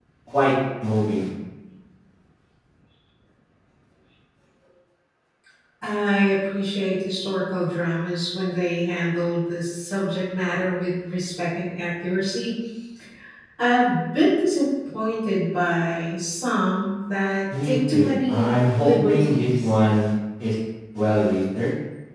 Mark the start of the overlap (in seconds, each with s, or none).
17.5 s